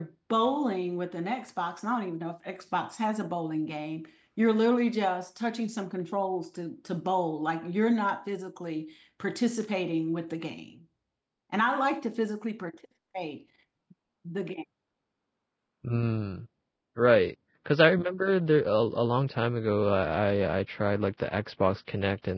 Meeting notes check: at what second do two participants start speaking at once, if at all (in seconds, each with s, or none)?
none